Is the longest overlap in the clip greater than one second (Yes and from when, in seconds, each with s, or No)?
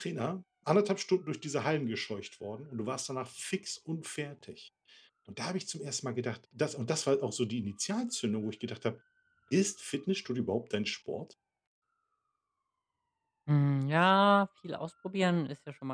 No